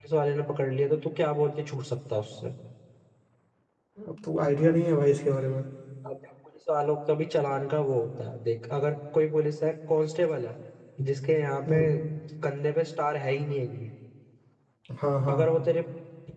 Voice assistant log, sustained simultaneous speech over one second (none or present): none